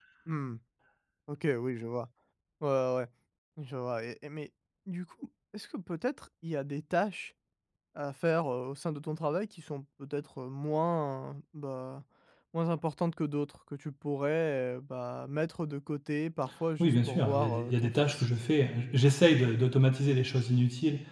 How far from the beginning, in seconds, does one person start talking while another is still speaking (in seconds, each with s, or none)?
16.8 s